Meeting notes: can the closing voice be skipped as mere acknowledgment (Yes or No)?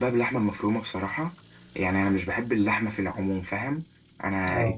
Yes